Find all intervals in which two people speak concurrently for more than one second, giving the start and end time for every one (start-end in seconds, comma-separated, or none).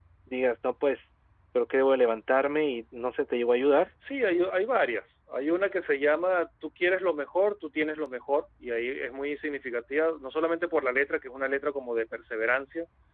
none